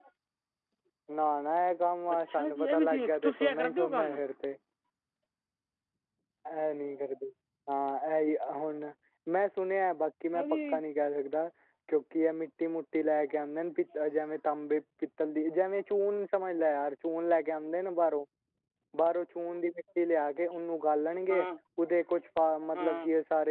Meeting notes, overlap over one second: present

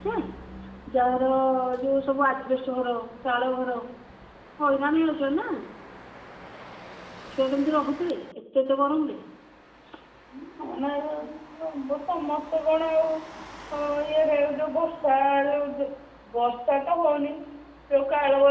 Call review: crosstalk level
none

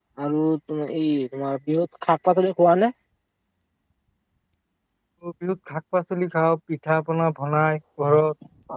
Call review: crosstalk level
none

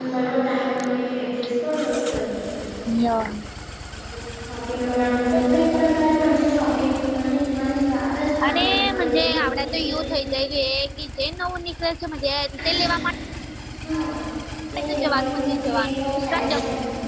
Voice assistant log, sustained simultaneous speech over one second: present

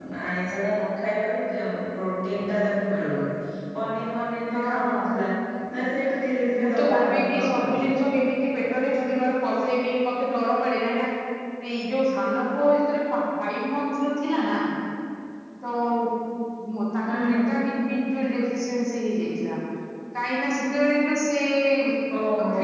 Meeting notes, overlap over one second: present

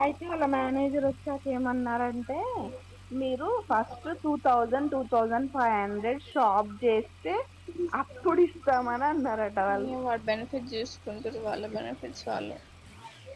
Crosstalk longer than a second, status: none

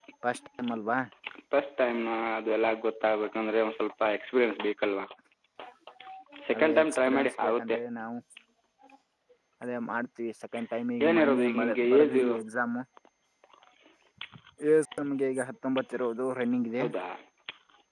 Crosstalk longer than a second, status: present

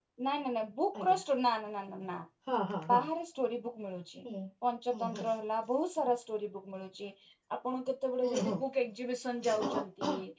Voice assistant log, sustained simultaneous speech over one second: none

